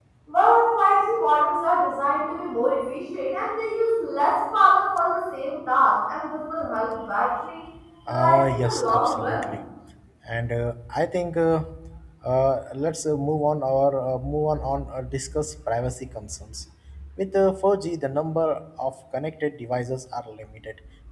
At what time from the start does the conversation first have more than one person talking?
8 s

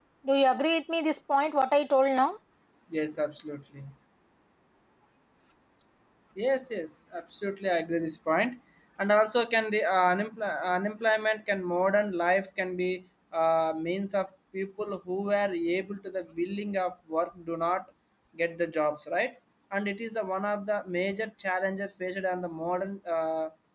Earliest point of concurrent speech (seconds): none

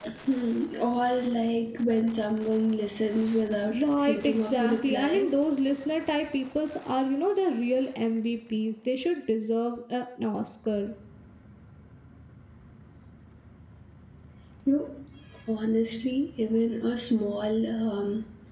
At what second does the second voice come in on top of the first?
4 s

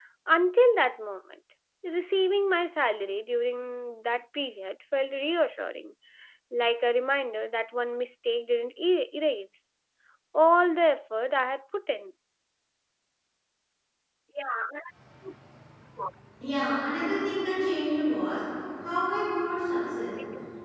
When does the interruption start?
none

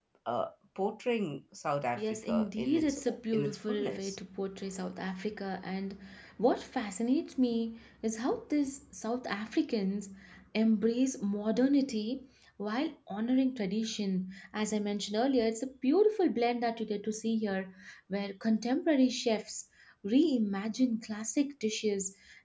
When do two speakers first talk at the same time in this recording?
2 s

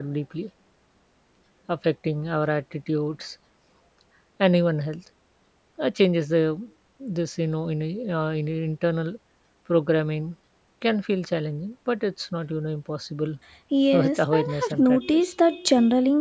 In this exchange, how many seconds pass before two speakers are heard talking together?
14 s

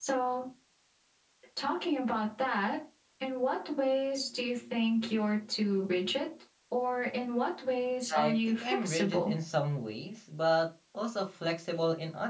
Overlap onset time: 8 s

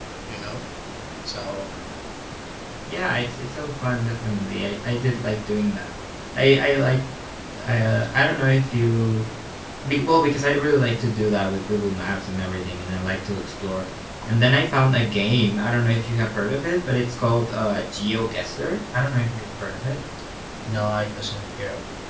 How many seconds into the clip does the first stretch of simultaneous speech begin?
none

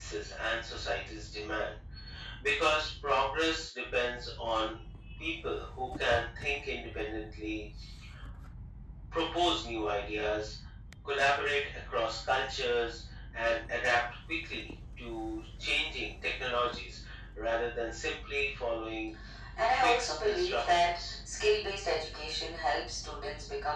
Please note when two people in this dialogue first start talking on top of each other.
20 s

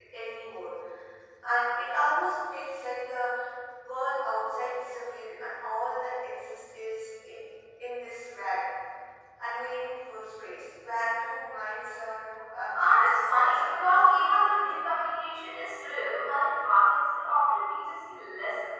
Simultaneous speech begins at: 13 s

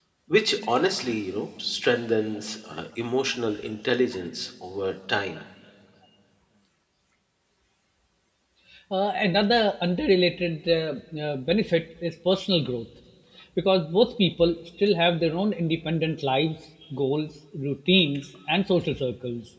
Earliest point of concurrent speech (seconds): none

